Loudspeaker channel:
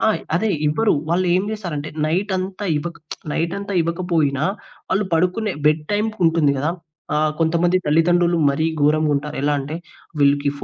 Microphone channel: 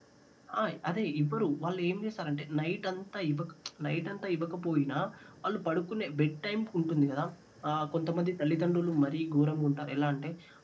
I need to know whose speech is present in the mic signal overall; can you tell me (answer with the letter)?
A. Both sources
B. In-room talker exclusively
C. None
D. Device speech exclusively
D